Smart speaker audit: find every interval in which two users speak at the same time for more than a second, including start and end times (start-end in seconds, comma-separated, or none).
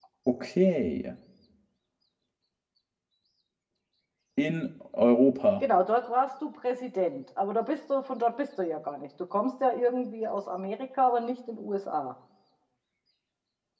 none